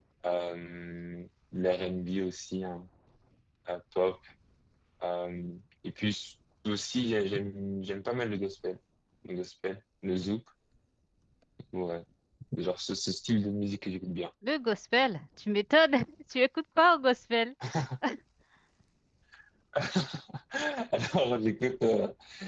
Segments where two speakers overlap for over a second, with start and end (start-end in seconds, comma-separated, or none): none